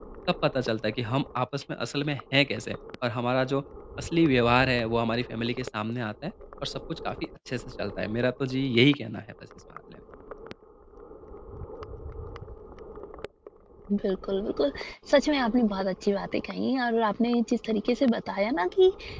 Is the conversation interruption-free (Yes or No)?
Yes